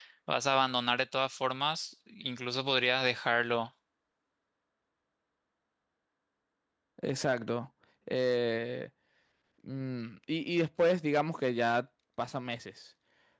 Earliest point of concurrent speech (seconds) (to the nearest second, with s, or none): none